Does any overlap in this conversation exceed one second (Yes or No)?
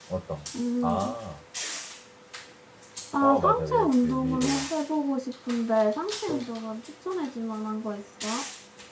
Yes